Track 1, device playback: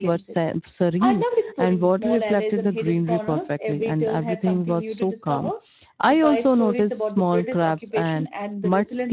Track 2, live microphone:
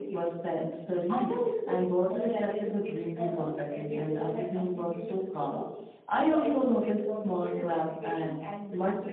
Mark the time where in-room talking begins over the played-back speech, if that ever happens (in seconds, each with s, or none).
none